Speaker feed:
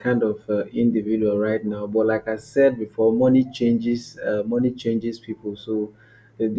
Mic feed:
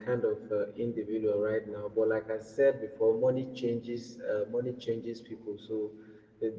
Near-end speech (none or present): none